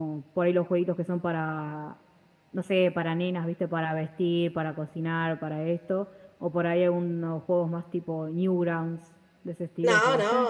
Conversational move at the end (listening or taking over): taking over